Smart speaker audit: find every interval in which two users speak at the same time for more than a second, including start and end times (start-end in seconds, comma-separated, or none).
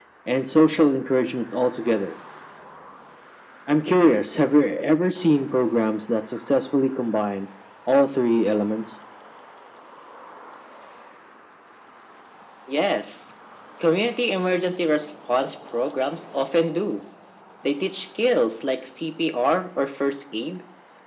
none